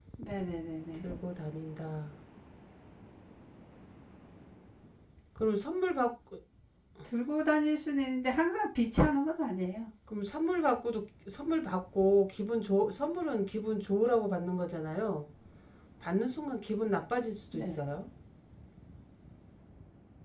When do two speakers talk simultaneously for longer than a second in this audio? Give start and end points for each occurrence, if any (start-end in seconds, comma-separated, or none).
none